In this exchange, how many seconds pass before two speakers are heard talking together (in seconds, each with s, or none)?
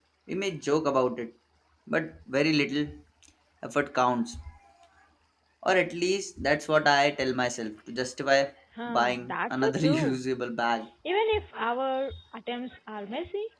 8.8 s